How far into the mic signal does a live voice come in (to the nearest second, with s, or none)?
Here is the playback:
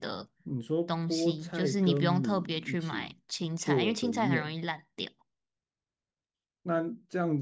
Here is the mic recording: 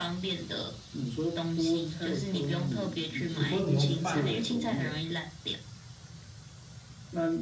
3 s